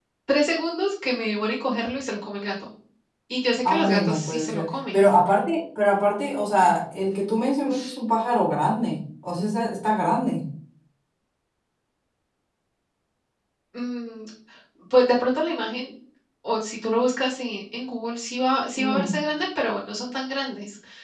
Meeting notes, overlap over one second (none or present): present